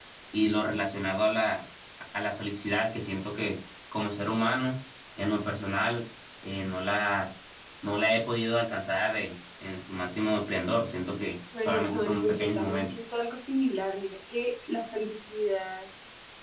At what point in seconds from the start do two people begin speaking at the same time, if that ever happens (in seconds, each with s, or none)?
11.5 s